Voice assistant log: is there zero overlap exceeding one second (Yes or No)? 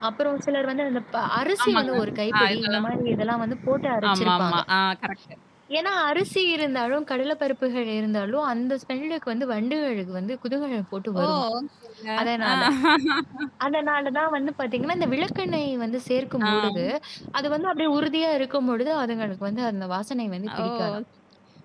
Yes